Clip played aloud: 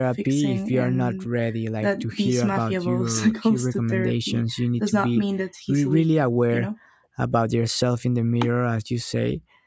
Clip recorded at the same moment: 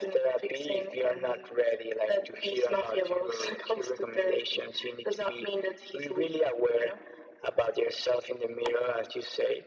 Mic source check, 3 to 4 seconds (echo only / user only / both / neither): echo only